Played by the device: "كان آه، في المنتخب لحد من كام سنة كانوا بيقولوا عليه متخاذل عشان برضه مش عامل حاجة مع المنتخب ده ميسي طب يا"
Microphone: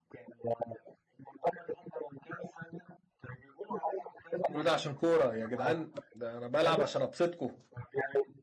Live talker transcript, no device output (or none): كل ده عشان كورة يا جدعان ده أنا بلعب عشان أبسطكم